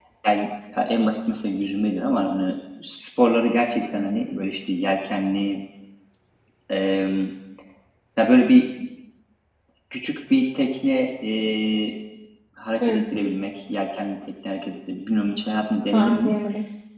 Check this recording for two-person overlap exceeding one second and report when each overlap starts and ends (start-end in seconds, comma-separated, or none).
none